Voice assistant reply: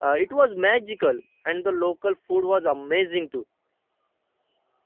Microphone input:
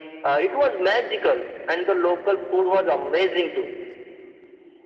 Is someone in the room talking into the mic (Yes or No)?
No